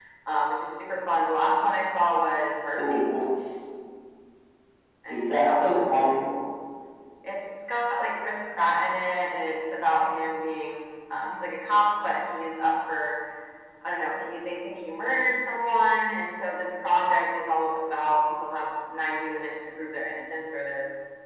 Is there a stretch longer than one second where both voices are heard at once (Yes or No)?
Yes